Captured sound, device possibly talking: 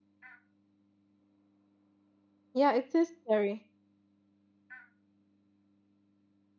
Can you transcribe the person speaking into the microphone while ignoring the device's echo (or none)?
Yeah, it is scary.